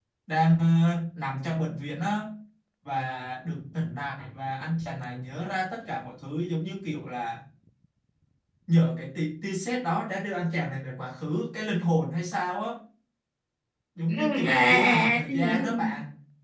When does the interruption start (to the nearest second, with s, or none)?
14 s